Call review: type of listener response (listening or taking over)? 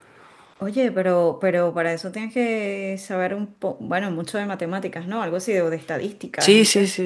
taking over